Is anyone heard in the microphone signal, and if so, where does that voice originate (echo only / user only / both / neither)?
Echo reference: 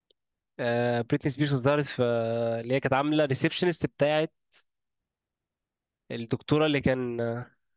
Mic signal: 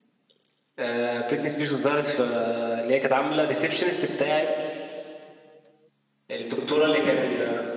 echo only